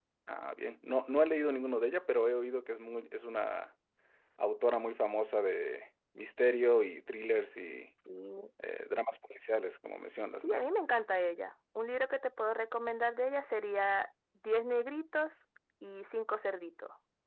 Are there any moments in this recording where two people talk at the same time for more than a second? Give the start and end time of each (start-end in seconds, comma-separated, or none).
none